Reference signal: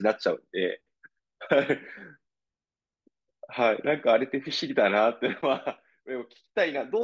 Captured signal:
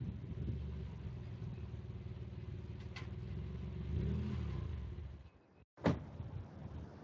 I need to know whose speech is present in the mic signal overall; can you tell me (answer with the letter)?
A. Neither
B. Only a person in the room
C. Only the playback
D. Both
A